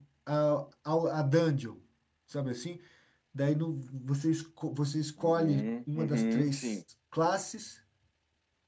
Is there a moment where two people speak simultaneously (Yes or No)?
Yes